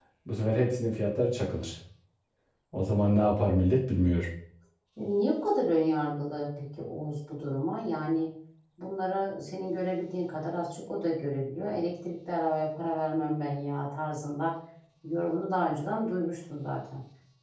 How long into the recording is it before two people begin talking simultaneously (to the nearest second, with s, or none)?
none